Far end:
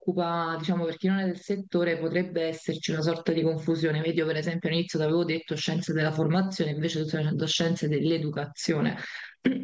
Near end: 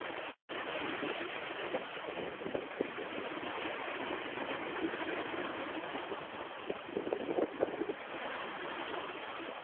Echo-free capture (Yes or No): Yes